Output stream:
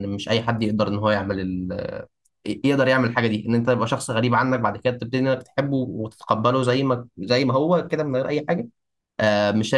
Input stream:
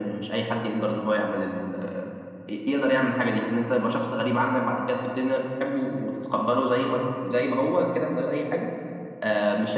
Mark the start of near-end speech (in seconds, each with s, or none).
none